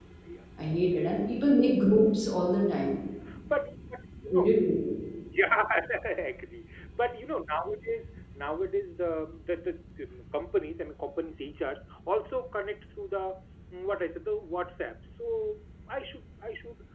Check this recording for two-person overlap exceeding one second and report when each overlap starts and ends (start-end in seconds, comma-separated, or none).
none